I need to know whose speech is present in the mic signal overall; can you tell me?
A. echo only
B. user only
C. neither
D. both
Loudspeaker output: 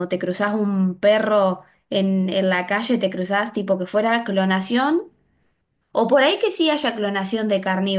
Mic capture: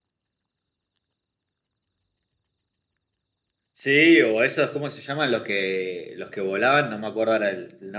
B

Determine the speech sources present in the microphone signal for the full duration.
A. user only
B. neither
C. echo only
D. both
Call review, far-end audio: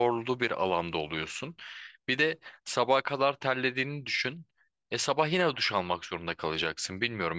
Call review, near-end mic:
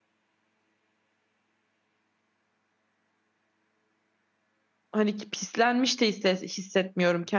A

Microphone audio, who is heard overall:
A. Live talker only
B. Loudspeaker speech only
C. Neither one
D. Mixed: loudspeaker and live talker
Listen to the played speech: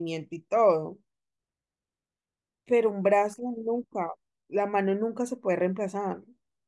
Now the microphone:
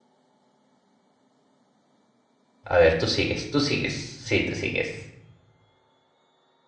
A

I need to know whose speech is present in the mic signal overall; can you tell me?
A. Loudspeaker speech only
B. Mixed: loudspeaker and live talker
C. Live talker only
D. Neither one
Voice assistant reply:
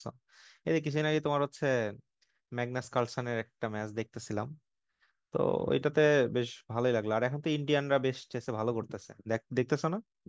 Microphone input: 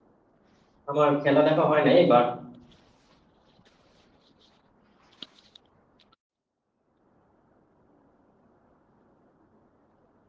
C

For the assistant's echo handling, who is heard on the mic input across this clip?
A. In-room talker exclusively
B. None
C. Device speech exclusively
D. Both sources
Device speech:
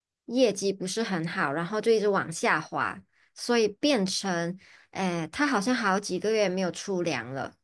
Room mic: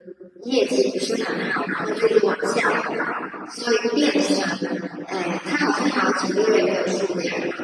C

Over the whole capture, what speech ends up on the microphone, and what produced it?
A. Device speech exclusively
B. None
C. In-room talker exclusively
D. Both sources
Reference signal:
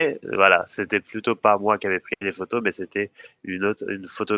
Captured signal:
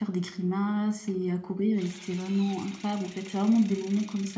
C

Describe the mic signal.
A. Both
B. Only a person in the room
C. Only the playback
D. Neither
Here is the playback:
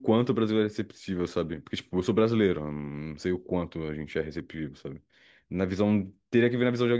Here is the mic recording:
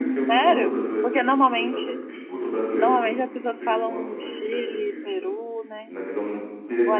A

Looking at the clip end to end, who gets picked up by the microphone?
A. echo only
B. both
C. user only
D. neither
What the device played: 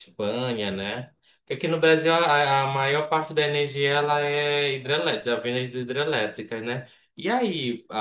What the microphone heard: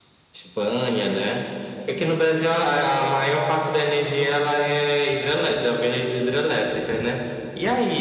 A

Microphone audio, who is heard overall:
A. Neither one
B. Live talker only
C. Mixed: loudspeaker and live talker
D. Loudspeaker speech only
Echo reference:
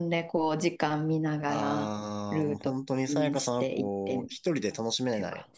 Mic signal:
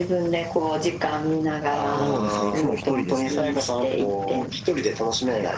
C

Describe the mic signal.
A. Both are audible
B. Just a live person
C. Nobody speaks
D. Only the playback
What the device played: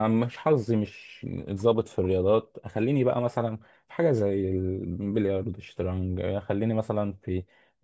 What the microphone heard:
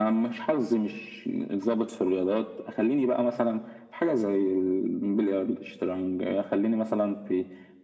D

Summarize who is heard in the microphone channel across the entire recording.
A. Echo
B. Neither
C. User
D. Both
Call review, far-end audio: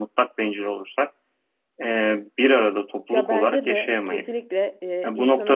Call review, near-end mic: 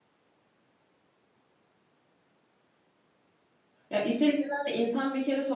C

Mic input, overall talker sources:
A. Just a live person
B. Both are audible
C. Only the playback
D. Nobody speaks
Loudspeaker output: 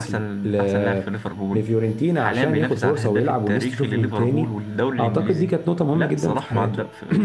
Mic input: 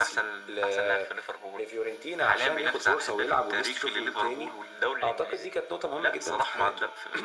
C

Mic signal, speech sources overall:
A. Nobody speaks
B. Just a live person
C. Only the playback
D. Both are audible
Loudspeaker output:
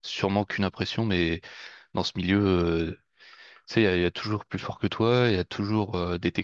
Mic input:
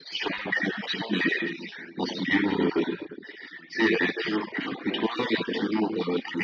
C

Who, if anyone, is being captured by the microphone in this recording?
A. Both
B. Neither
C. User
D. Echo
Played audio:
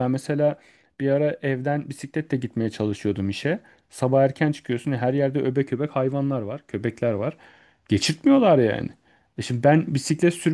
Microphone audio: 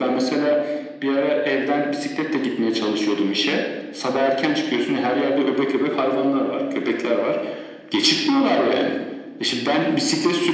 D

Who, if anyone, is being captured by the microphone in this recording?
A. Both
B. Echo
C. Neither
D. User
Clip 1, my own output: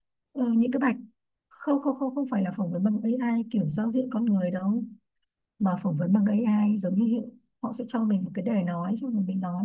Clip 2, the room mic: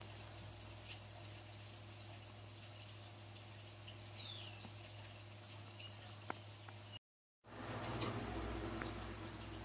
C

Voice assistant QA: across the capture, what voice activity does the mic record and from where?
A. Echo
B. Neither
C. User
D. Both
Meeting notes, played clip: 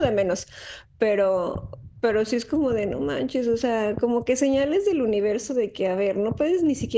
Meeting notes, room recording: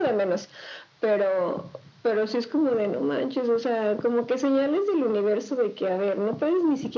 A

